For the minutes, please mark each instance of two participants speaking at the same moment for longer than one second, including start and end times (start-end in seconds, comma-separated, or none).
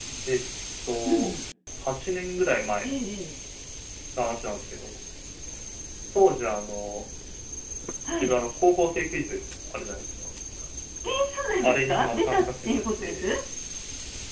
11.6-13.2